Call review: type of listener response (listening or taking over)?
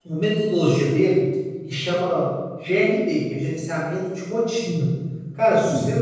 listening